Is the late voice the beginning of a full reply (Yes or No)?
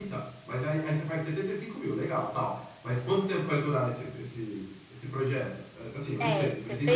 Yes